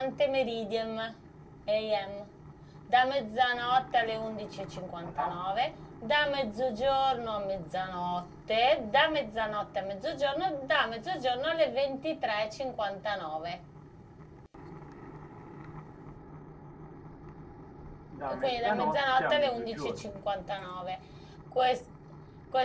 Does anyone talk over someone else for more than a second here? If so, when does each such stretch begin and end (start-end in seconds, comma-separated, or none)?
18.4-20.2